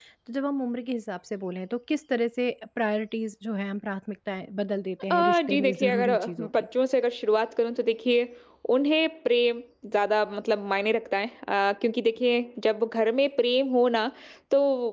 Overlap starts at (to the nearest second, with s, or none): 5 s